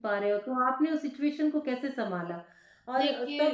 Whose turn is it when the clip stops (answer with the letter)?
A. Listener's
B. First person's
B